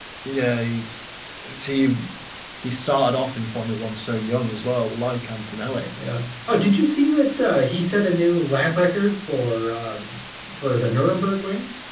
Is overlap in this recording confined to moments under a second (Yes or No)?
Yes